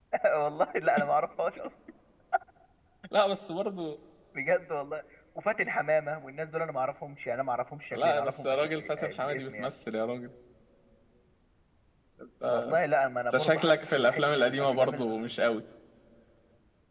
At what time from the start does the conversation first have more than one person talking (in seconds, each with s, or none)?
7.9 s